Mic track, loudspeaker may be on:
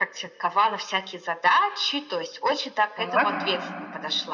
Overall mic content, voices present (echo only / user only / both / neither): both